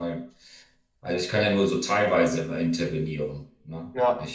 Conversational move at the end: listening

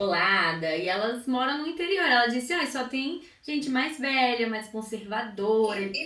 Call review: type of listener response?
taking over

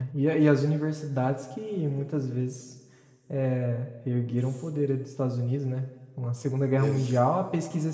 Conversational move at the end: listening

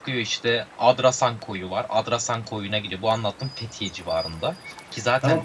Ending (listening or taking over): taking over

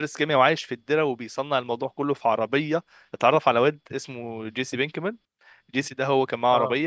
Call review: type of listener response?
listening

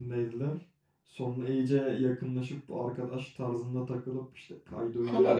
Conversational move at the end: taking over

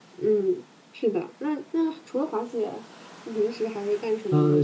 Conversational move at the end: taking over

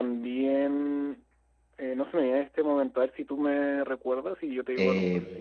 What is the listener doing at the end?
taking over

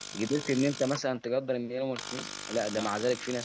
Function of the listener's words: listening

